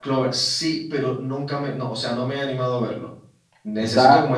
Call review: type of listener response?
listening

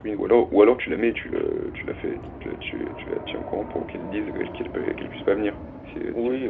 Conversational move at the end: taking over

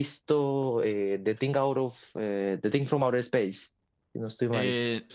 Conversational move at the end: taking over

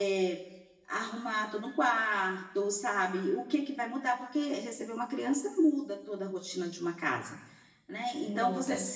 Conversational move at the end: listening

